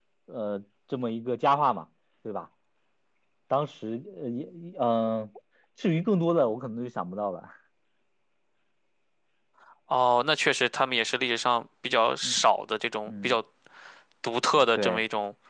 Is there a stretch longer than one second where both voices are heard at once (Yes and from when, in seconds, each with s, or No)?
No